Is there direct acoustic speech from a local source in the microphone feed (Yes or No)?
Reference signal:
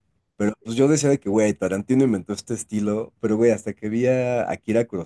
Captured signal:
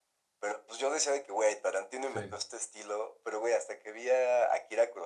Yes